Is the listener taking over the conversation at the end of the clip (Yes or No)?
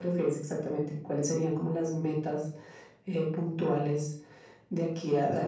Yes